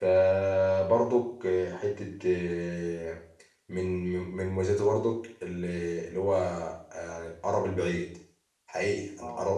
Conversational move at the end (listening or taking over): listening